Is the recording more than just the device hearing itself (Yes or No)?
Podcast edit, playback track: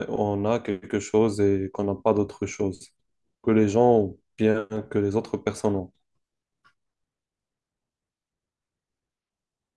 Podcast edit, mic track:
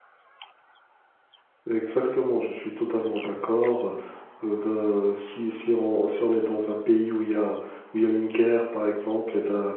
Yes